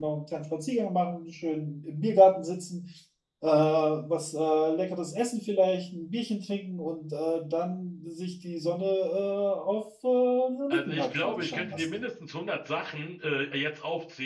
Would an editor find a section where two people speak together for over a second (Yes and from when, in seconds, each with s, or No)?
Yes, from 10.7 s